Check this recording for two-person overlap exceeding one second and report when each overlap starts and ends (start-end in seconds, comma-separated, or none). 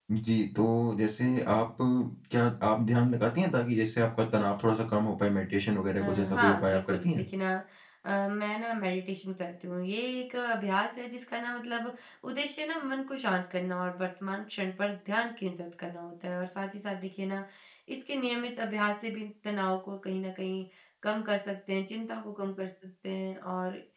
6.0-7.2